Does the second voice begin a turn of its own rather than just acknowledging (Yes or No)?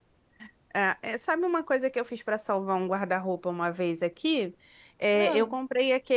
No